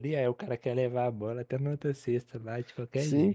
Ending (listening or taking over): taking over